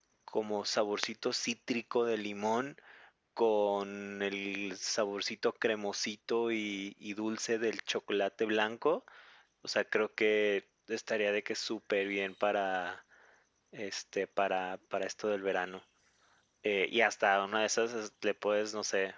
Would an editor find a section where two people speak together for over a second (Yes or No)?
No